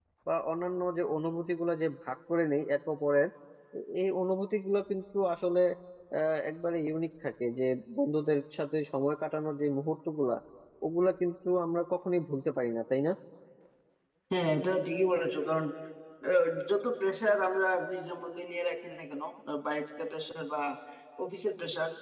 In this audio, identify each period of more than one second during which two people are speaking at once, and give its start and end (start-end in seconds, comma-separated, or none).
none